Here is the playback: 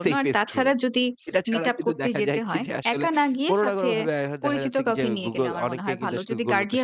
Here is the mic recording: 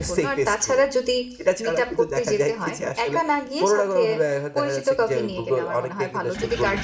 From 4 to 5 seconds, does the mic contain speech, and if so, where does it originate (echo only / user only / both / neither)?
echo only